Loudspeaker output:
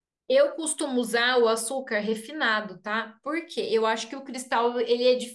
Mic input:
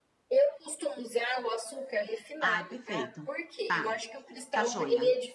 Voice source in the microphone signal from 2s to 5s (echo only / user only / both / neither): both